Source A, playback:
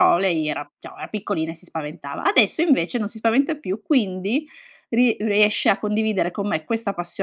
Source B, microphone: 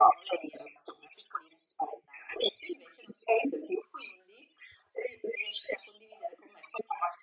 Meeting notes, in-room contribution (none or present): none